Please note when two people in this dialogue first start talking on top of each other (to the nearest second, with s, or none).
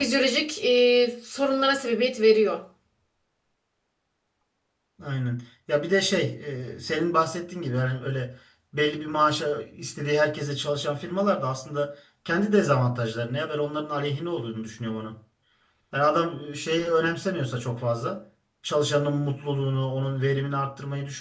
none